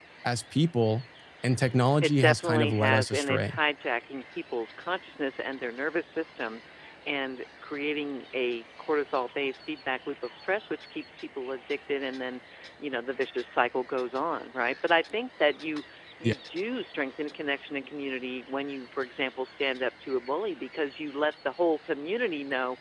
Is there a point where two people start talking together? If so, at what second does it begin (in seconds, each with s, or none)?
2.0 s